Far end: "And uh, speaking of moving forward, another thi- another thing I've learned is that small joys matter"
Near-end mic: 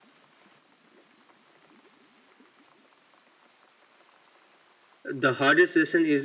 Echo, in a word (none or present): none